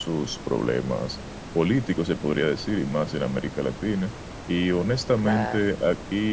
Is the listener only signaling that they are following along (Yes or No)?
Yes